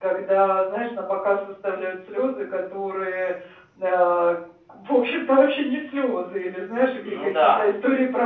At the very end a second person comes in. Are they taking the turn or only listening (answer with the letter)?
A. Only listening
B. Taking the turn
A